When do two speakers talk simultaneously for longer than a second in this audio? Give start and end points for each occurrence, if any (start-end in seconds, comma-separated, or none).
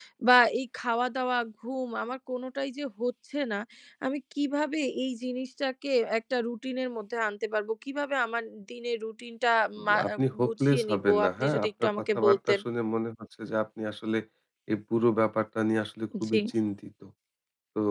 9.9-12.6